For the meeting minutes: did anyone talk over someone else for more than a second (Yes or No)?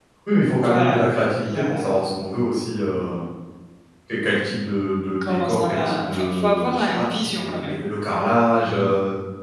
Yes